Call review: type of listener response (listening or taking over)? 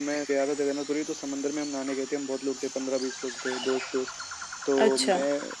listening